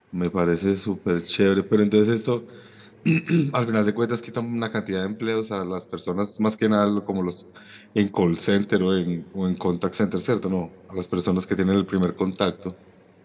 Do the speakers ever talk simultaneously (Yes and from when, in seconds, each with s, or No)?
No